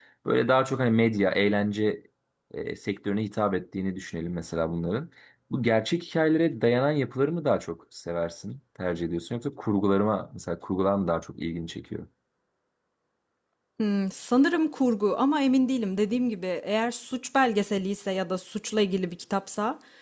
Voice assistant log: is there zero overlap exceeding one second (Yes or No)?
Yes